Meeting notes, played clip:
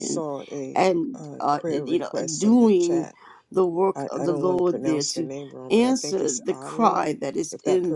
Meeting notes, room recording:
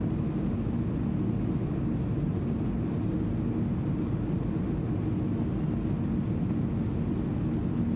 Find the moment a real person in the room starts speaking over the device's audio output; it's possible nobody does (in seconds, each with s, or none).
none